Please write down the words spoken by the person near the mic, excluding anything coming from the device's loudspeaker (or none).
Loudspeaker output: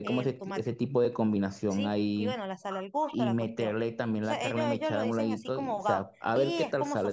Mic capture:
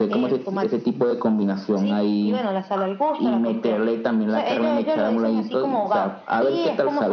none